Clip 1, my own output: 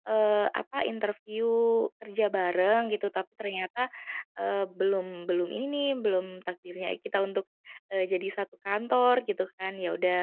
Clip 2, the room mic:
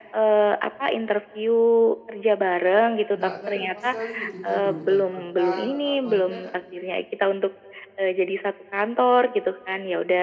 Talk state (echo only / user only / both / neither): both